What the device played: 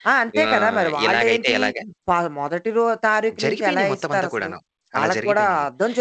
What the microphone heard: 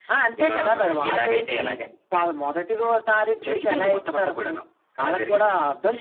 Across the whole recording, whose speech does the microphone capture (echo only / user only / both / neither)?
echo only